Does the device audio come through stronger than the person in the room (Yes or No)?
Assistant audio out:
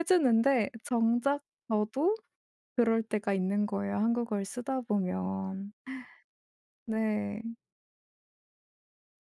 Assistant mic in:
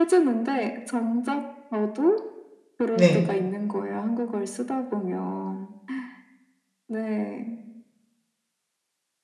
No